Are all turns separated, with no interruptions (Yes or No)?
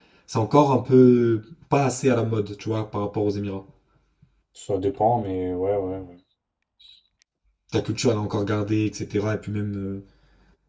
Yes